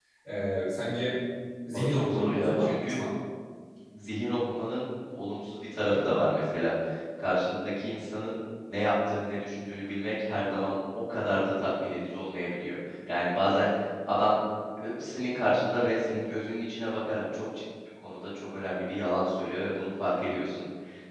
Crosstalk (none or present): present